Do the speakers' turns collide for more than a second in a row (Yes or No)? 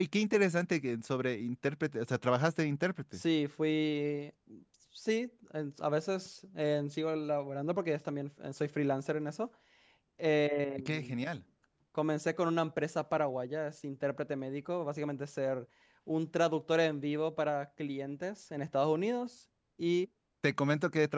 No